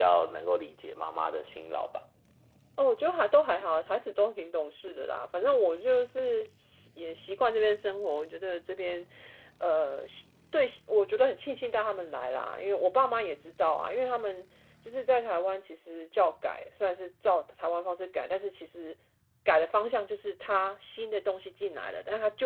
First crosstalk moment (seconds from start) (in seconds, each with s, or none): none